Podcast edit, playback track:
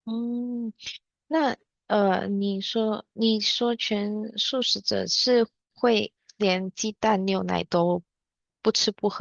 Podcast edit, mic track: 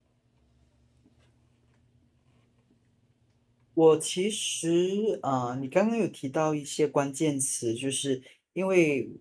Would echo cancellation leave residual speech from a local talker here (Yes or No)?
Yes